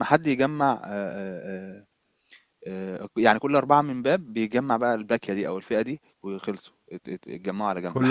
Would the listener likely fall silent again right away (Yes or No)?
No